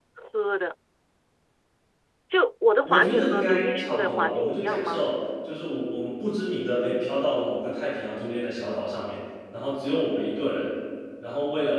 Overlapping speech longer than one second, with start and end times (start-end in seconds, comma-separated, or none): 2.8-5.0